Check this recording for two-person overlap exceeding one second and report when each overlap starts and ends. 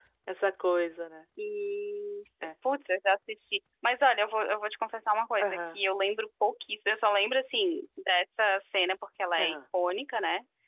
none

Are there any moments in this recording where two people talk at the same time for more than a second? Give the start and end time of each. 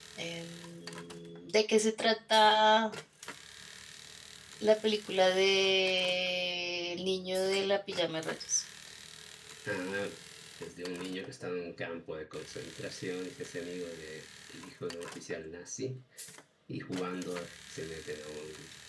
none

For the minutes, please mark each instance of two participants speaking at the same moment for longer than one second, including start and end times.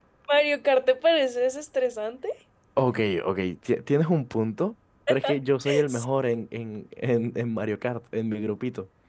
none

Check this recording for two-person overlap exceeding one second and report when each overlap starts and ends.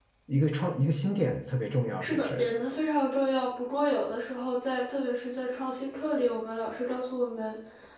none

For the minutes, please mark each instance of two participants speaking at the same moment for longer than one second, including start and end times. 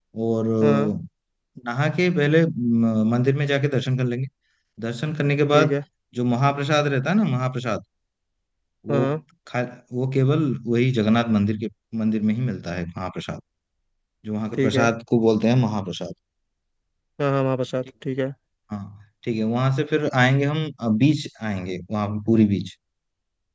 none

